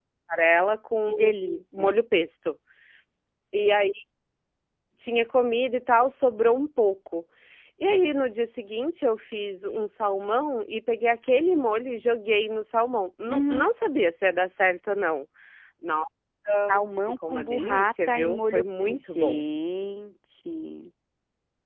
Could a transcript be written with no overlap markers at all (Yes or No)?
No